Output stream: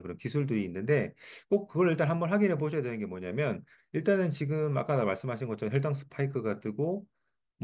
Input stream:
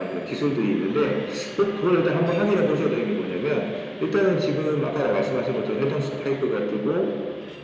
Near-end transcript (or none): none